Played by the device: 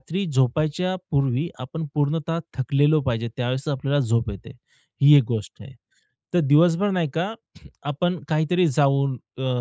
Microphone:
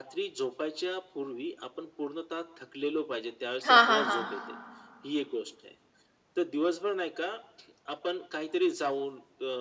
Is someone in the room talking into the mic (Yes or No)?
Yes